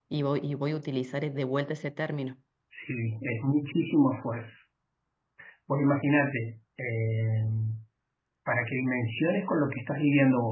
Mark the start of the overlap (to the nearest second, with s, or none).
none